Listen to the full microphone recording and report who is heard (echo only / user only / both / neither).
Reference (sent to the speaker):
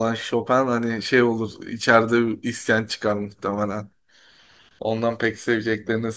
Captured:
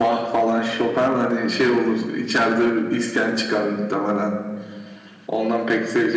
echo only